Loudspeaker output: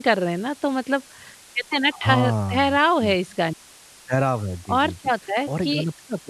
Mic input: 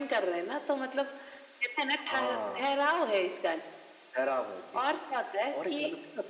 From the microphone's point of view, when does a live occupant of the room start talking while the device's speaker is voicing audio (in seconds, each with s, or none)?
none